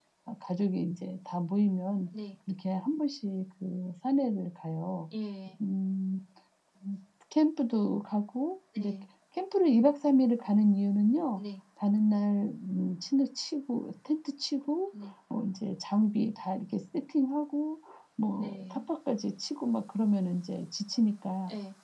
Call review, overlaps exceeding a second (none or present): none